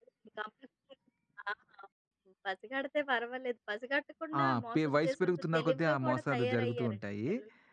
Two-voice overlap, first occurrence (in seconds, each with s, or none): 4.3 s